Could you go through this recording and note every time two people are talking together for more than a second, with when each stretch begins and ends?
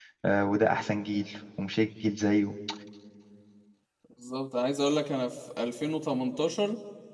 none

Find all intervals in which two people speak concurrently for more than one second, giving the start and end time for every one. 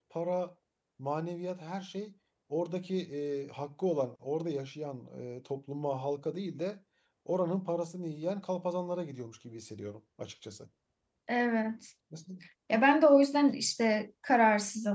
none

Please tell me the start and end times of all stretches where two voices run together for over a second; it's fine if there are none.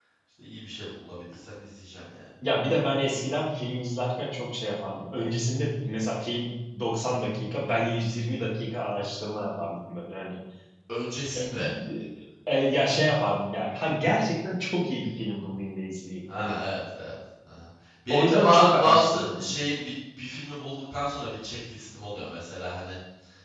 18.1-19.5

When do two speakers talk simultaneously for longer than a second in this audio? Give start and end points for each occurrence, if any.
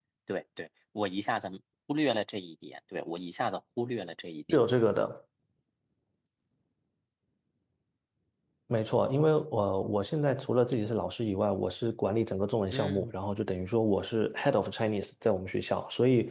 none

